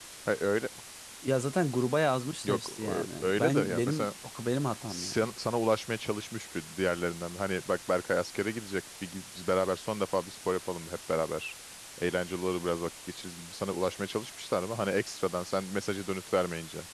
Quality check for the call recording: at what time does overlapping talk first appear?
2.4 s

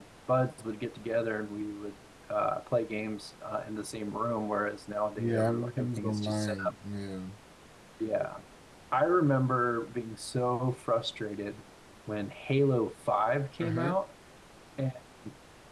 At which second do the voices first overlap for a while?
5.2 s

